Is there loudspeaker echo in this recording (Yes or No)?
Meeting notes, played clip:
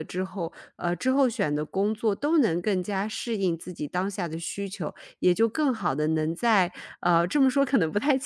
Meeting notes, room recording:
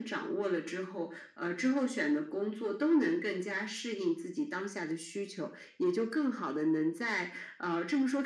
Yes